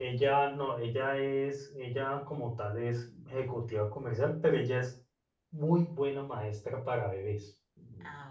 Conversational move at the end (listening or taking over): listening